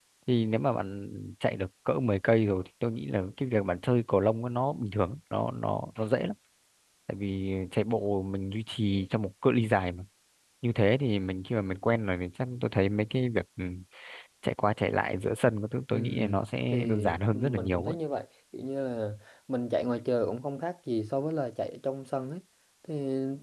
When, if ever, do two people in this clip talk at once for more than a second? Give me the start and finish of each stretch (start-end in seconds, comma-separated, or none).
16.7-18.0